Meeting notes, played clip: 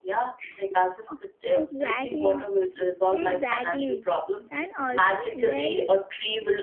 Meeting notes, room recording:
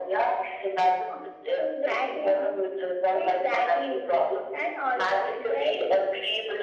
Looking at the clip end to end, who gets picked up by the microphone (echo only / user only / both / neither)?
echo only